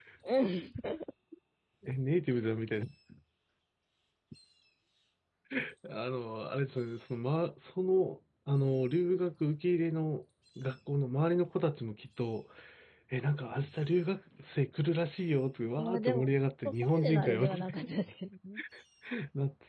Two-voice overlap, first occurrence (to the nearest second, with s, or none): 16 s